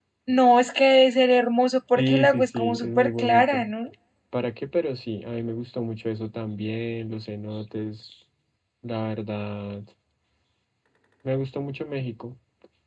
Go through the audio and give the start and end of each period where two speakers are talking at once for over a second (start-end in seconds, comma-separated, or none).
2.0-3.6